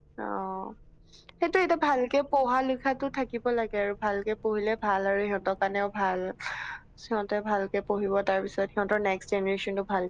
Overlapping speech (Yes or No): No